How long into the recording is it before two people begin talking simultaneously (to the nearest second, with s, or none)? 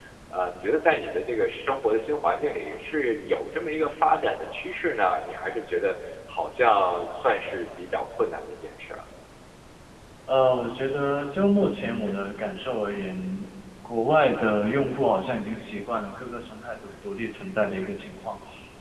none